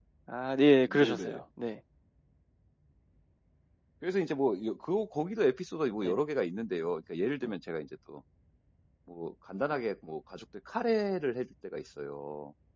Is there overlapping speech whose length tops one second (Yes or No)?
No